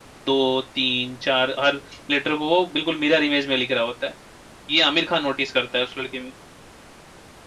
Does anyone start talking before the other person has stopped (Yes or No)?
No